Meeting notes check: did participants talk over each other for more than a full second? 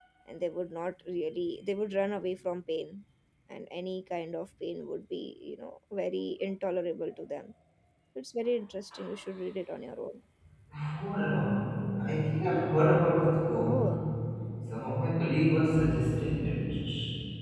No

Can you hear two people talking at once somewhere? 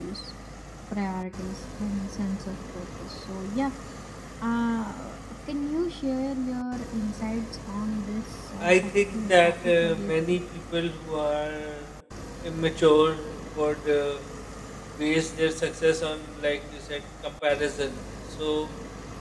Yes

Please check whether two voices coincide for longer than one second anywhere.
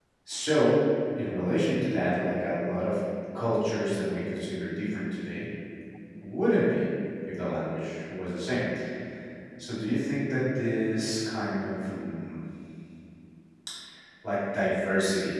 No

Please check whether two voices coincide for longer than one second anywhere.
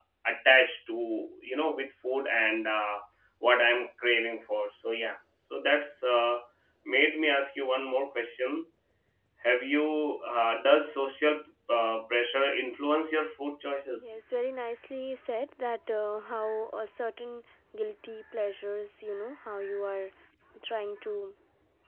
No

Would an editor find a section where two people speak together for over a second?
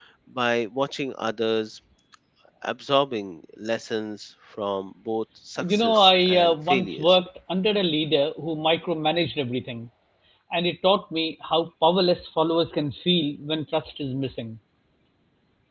Yes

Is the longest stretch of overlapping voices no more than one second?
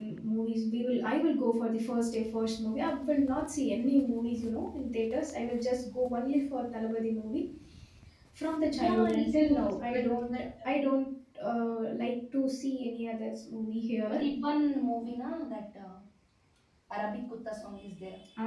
No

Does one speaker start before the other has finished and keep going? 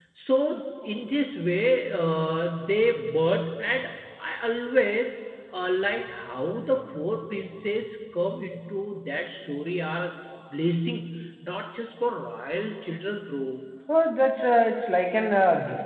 No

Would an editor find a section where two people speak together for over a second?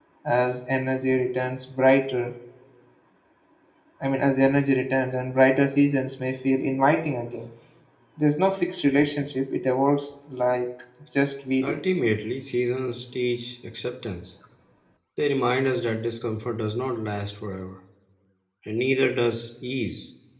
No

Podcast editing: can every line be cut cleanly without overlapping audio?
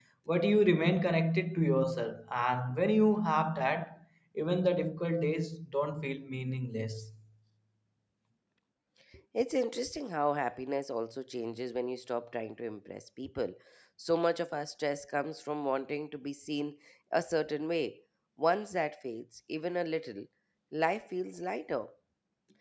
Yes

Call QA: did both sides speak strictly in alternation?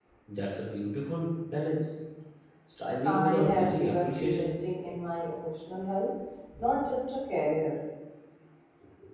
No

